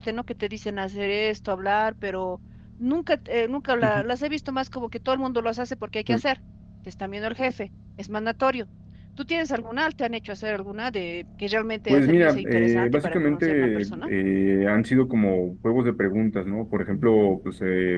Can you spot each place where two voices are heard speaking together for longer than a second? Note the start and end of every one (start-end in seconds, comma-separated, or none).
11.9-14.1